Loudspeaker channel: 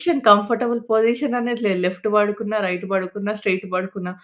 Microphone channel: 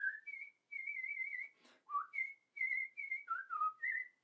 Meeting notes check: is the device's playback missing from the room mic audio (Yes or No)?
Yes